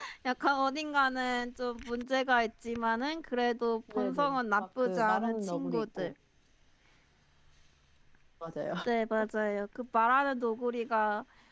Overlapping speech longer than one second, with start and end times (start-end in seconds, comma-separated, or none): 3.9-6.1